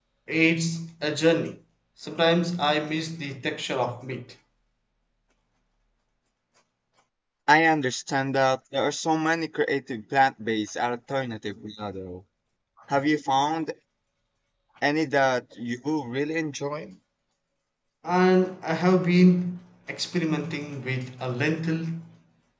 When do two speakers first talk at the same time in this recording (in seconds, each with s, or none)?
none